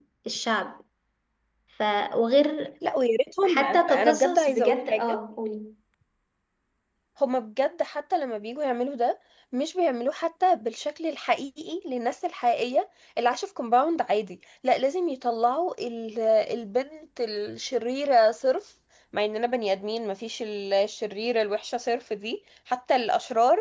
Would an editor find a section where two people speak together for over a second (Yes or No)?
Yes